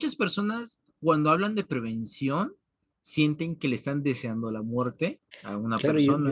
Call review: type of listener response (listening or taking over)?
taking over